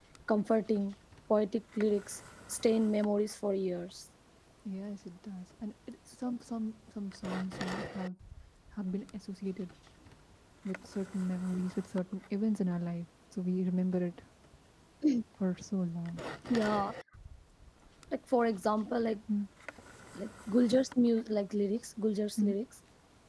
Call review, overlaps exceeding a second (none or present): none